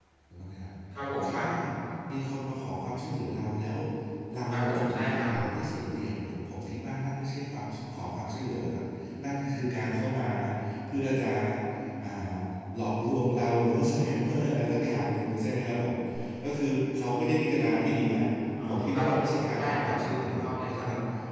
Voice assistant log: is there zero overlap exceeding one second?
No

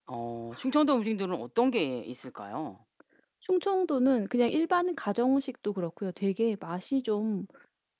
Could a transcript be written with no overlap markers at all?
Yes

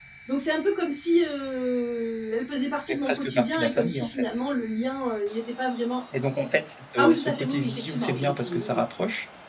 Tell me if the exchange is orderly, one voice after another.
No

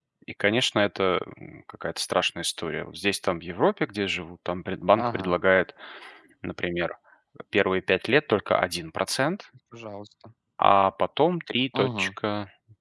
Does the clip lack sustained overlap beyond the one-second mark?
Yes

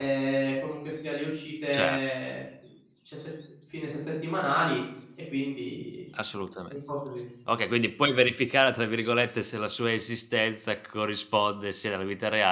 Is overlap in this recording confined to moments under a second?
Yes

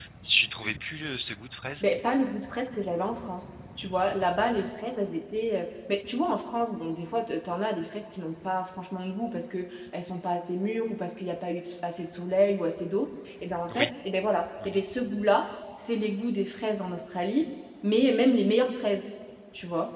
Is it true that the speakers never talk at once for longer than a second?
Yes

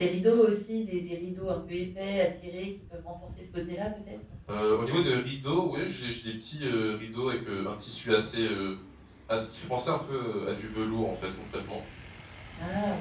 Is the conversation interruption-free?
Yes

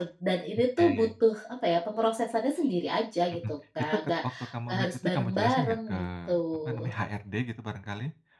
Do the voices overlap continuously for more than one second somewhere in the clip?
Yes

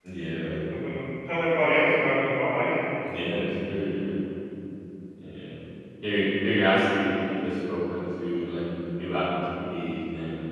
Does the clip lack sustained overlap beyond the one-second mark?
Yes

